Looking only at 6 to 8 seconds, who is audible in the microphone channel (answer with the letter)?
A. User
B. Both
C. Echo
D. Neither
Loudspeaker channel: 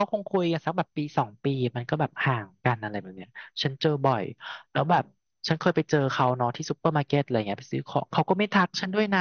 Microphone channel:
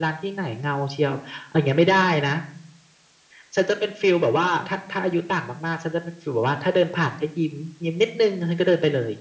A